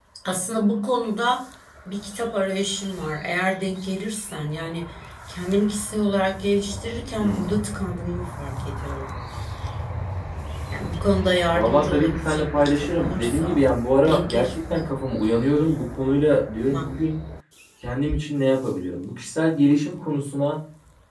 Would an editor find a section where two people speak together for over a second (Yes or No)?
Yes